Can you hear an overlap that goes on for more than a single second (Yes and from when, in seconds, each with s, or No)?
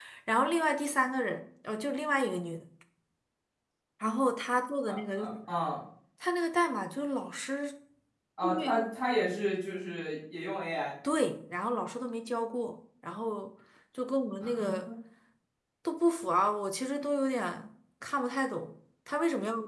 No